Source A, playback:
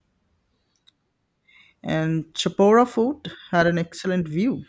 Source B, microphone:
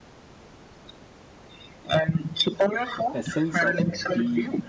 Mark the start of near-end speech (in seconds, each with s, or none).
3.1 s